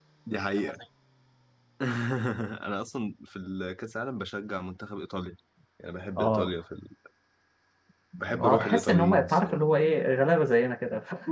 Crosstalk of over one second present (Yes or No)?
Yes